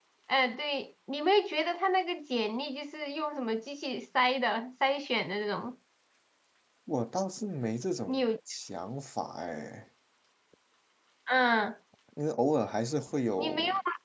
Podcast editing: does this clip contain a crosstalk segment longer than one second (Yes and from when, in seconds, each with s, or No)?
No